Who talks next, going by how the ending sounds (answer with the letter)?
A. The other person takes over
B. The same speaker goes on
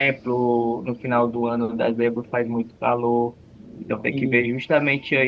B